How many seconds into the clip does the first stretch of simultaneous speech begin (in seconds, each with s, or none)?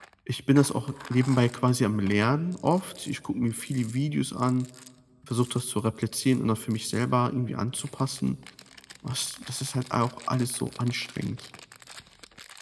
none